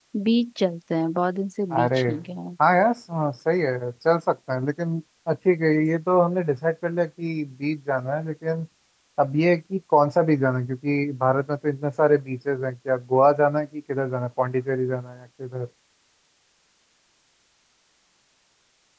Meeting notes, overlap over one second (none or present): none